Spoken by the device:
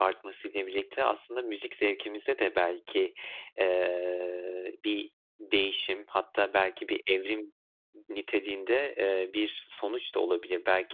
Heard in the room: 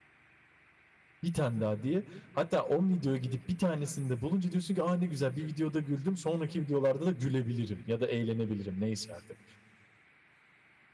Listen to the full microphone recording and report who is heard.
user only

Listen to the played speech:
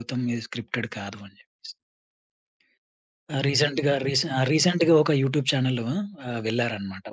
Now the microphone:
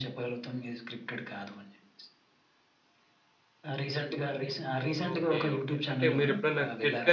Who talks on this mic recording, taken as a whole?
both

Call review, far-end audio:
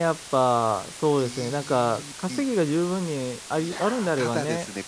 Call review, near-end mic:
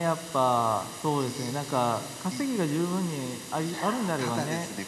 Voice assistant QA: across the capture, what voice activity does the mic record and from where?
echo only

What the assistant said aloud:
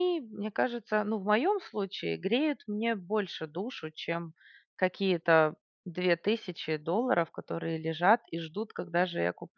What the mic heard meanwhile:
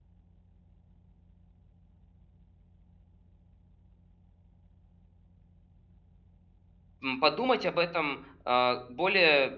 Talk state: user only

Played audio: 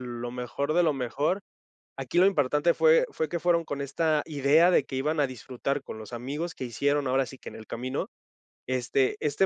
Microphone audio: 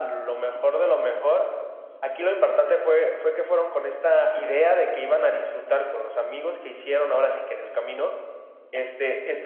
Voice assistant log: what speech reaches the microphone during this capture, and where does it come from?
echo only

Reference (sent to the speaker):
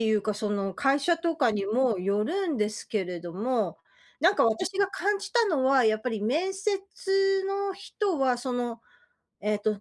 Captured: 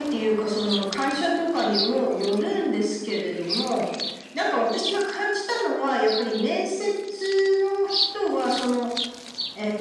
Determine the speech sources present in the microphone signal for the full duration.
echo only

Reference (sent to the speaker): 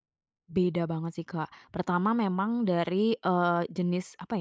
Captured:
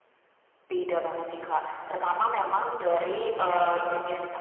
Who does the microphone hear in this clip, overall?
echo only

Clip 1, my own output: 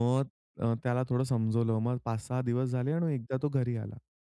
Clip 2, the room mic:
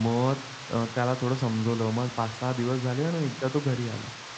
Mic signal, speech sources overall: echo only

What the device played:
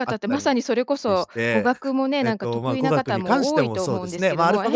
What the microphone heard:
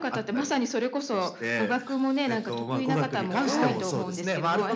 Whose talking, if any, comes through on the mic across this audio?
both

